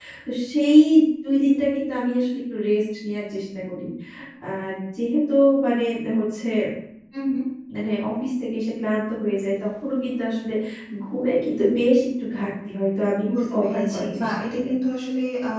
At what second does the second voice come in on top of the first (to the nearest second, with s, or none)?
13 s